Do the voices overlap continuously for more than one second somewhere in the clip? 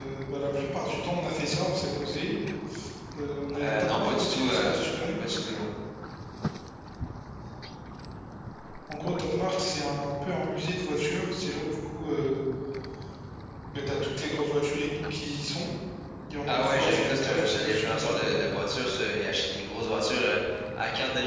Yes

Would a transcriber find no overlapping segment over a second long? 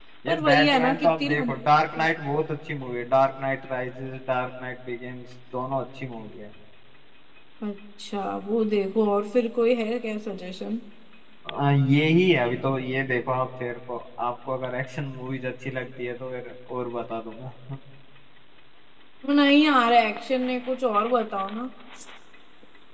No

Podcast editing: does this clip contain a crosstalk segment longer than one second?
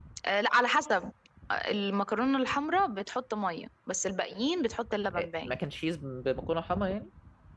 No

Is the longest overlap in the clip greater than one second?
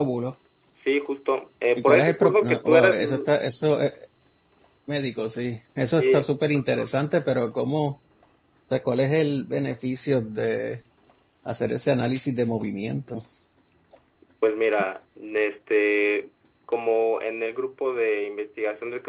Yes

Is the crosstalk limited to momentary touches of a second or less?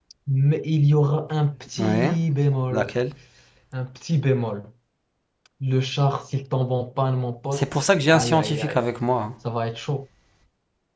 No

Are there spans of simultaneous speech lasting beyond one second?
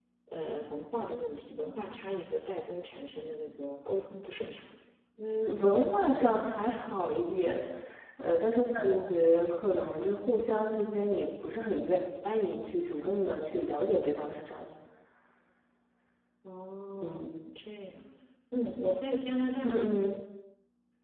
No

